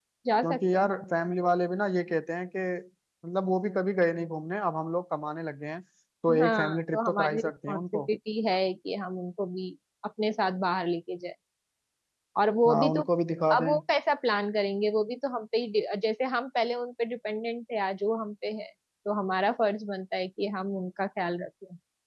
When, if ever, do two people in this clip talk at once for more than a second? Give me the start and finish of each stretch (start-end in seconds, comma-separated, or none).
6.4-8.0